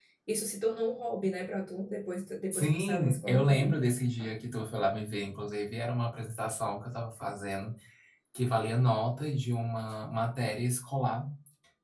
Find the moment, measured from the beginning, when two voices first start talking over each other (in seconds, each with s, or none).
2.5 s